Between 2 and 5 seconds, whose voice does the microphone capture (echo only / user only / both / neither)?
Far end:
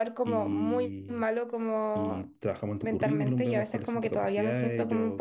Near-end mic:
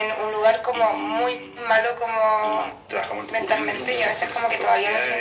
echo only